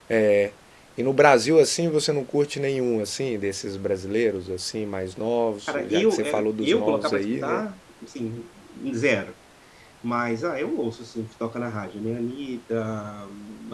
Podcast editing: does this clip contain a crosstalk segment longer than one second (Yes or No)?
Yes